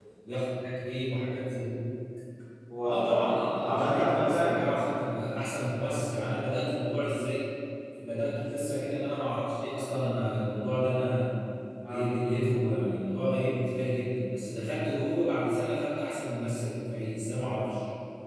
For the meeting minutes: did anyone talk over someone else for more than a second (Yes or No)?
Yes